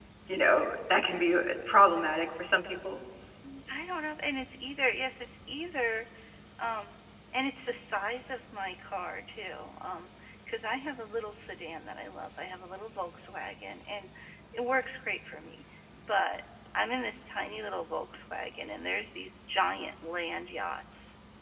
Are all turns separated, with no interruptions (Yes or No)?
Yes